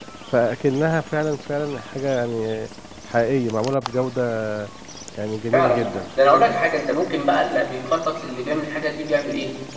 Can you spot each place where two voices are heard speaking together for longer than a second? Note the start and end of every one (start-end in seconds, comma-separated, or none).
none